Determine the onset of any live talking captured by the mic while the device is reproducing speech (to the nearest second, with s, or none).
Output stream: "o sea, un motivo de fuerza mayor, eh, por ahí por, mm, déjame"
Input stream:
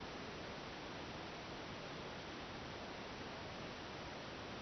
none